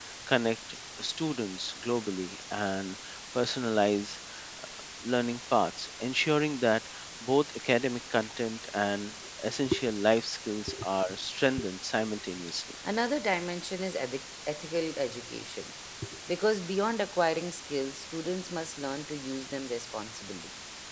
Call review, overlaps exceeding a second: none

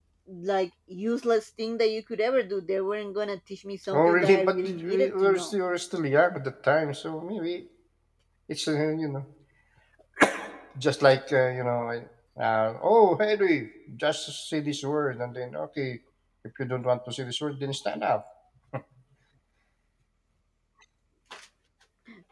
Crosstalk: present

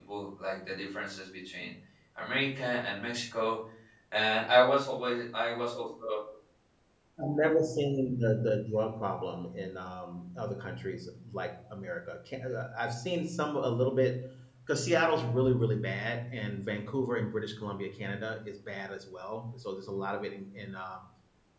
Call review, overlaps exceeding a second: none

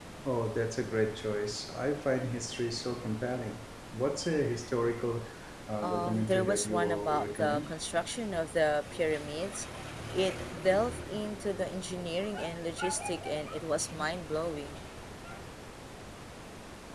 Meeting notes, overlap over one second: present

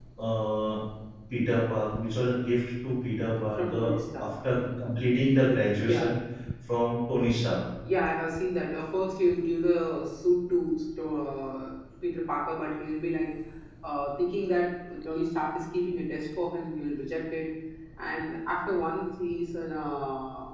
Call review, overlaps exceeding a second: none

